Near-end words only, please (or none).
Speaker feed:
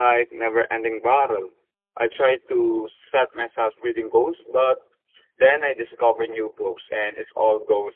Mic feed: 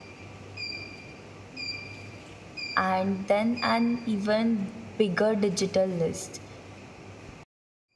and then an even bigger digital list.